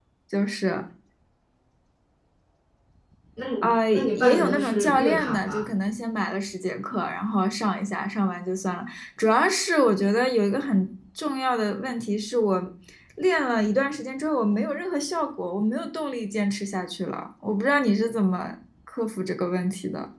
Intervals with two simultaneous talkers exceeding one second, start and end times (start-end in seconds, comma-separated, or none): 3.6-5.6